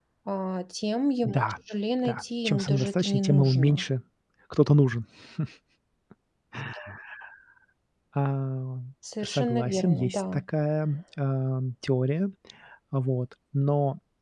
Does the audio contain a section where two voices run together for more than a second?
Yes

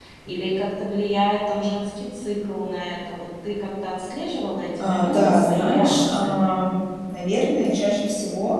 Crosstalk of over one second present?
Yes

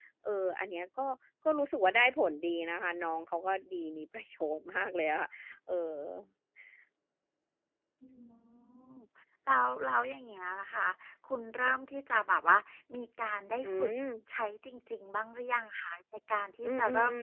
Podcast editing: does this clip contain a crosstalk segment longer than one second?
No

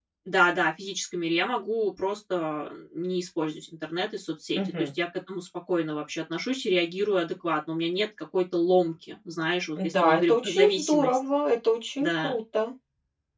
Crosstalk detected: Yes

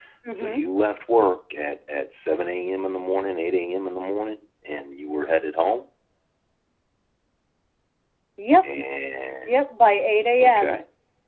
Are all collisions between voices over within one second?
Yes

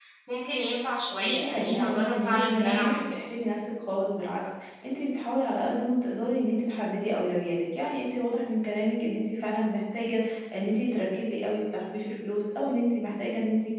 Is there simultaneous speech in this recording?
Yes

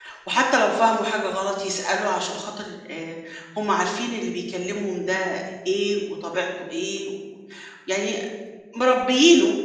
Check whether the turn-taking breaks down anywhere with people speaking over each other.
No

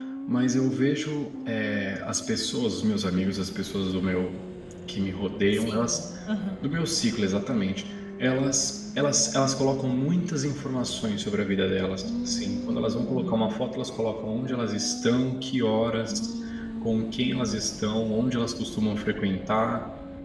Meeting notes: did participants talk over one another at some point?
Yes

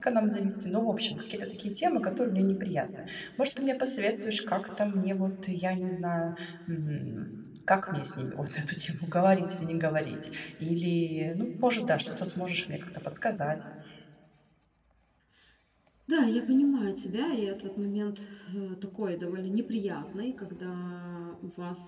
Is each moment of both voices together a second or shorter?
Yes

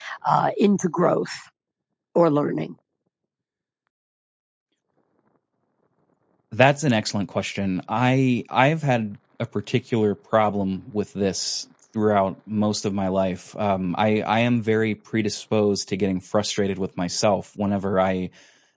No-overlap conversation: Yes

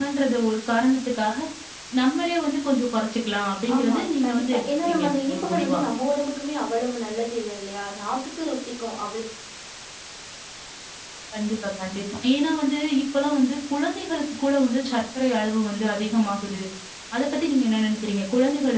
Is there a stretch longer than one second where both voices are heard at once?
Yes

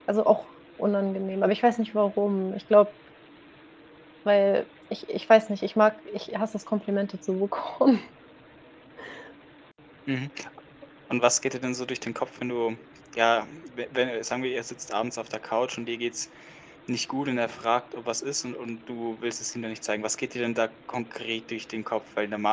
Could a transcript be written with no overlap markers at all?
Yes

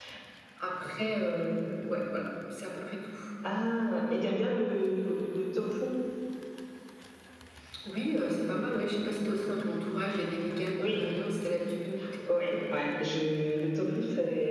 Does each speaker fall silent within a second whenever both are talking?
Yes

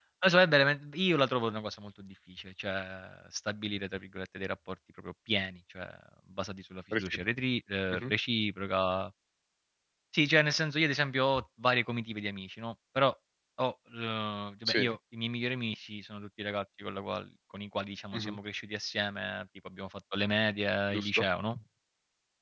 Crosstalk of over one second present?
No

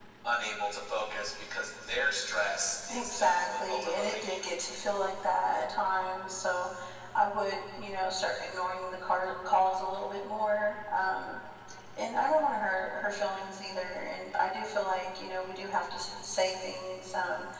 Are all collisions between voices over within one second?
No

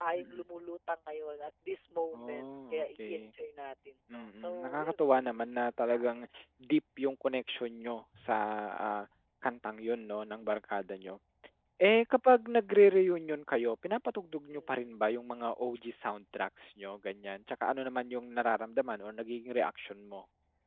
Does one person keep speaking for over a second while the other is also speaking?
Yes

